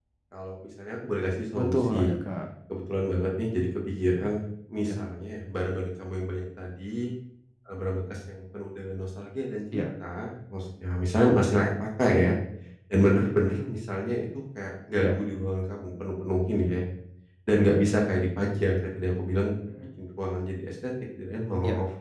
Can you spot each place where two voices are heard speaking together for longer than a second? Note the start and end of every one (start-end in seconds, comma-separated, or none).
none